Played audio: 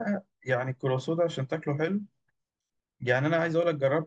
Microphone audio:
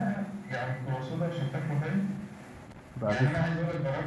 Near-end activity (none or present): present